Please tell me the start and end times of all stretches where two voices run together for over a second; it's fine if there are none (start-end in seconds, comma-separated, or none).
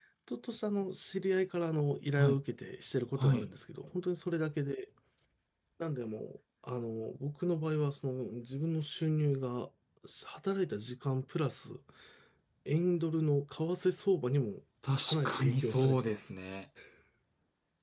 15.0-16.3